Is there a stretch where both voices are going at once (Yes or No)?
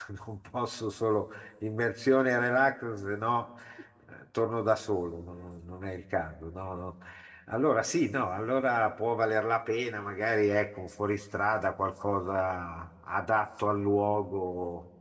No